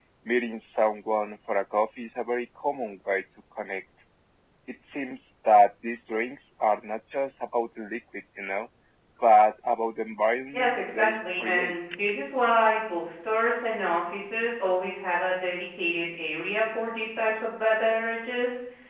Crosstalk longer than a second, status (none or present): present